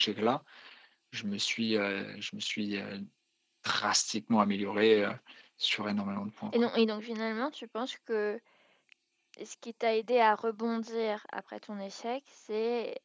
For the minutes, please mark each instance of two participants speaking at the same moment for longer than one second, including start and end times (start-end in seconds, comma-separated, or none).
none